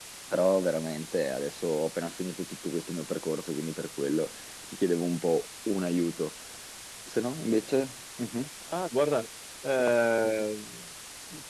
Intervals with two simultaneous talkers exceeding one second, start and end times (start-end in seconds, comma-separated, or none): none